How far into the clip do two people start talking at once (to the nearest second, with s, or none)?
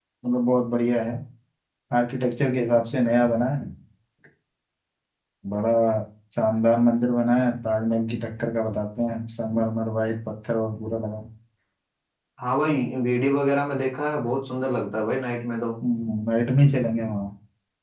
none